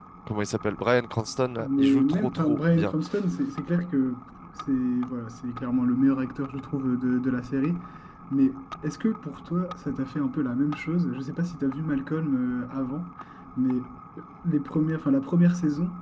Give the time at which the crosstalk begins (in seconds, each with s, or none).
1.6 s